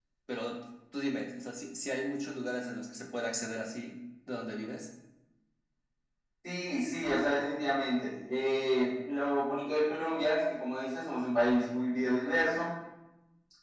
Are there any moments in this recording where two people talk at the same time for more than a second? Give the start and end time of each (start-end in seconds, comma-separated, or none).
none